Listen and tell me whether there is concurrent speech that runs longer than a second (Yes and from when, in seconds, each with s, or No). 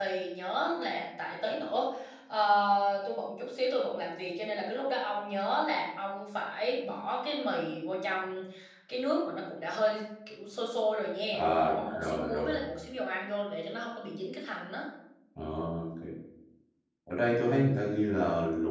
Yes, from 11.3 s